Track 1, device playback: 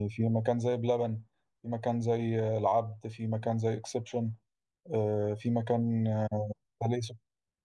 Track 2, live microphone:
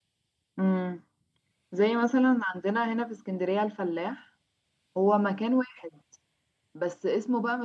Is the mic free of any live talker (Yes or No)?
No